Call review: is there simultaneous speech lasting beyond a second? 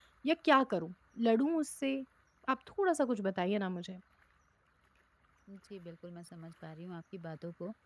No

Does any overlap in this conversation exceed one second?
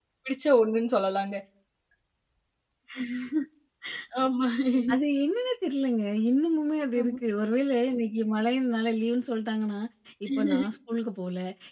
No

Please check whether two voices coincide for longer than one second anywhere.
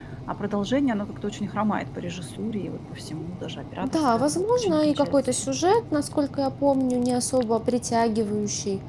Yes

